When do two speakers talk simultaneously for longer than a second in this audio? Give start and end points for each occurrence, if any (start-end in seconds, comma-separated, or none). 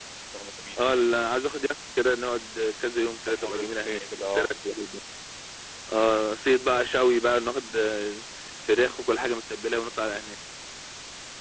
3.3-4.5